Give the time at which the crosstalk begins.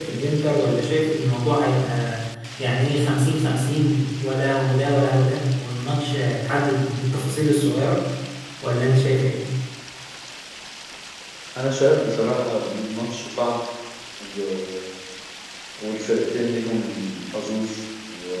none

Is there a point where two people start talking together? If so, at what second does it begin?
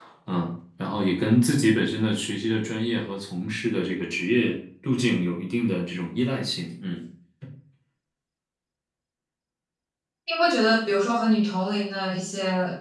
none

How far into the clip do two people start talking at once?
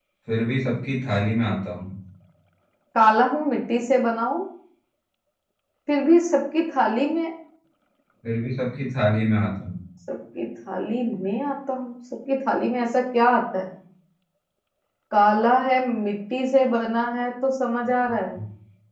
none

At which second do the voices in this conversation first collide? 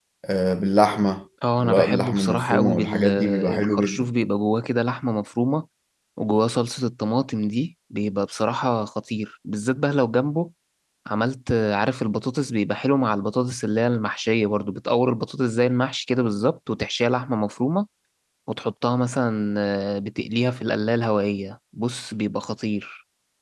1.4 s

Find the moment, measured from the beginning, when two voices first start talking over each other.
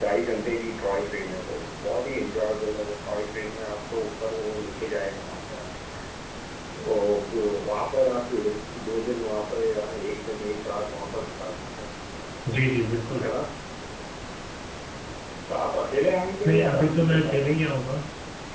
16.4 s

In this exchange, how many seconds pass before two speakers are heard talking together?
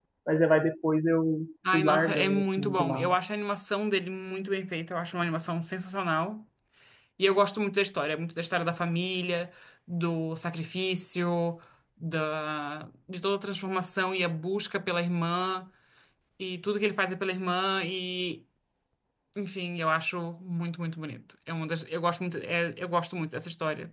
1.6 s

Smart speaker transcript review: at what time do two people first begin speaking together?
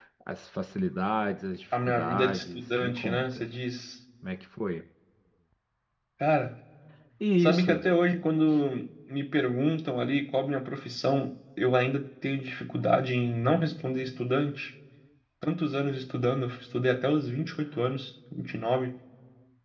1.8 s

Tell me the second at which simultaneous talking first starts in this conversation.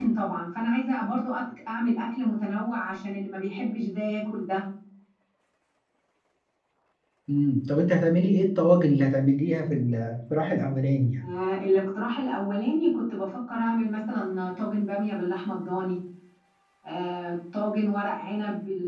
none

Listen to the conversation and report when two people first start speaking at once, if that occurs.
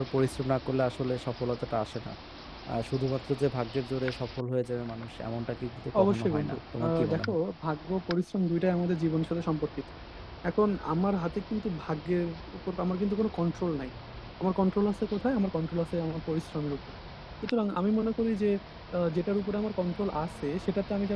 5.9 s

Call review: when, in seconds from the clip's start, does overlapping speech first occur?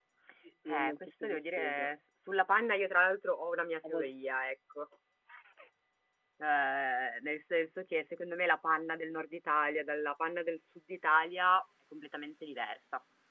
0.7 s

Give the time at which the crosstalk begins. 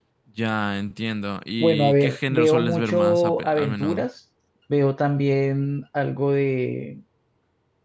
1.6 s

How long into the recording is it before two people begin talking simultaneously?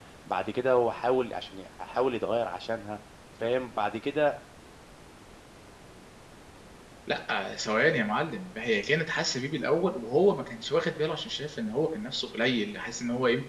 none

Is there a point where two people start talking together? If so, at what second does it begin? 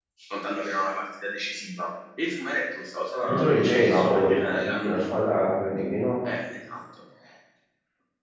3.3 s

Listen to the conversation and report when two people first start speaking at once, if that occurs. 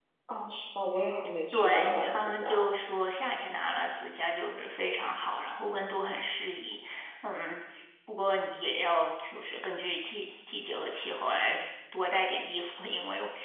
1.5 s

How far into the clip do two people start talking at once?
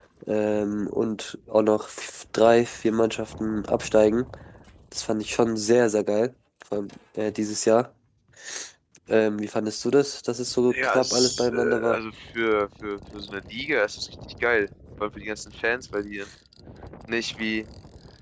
10.7 s

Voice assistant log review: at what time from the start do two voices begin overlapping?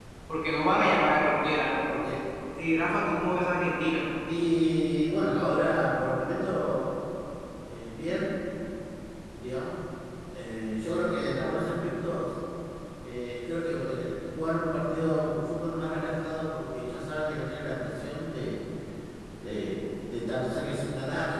none

